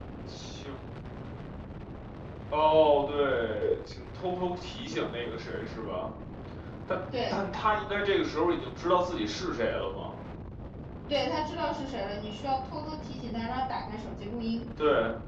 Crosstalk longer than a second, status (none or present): none